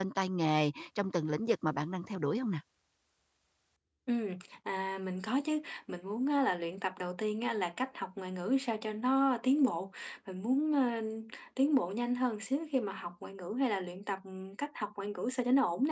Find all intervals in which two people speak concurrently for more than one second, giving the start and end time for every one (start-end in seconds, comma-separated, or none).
none